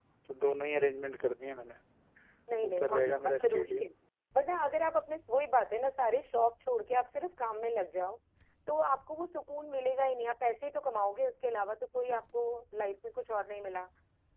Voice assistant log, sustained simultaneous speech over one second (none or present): present